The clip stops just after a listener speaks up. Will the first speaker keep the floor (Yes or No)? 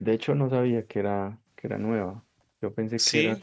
Yes